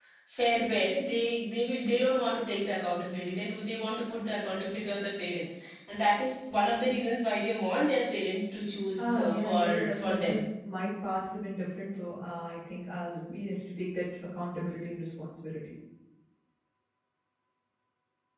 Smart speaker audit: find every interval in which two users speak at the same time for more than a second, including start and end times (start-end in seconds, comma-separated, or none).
9.0-10.4